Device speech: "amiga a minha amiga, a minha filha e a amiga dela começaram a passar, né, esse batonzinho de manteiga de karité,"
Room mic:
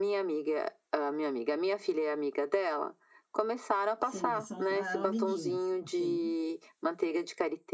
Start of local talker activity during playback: 4.0 s

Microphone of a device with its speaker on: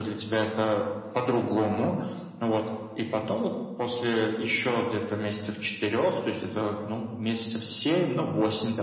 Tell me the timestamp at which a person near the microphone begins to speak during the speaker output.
none

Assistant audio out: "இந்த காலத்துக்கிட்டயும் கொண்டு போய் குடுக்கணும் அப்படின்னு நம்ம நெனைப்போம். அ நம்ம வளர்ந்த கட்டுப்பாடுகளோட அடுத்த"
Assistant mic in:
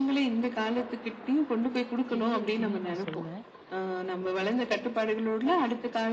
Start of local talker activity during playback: 2.1 s

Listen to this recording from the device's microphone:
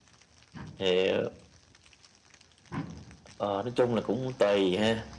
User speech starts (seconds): none

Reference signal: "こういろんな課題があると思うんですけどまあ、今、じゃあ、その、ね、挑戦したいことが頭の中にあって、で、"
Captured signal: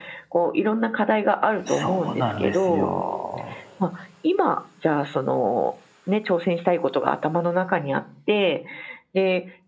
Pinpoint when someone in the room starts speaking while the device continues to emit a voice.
1.7 s

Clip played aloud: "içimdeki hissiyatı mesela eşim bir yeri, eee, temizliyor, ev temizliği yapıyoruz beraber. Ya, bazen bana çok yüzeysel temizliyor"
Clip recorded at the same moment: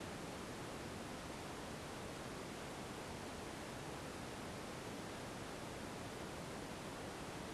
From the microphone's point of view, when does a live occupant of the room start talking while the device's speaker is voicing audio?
none

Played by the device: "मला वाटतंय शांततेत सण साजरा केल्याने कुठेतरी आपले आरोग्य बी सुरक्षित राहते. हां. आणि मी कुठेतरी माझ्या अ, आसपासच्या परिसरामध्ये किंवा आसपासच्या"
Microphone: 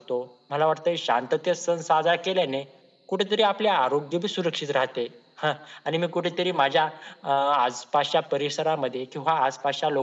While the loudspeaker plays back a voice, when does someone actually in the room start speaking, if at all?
none

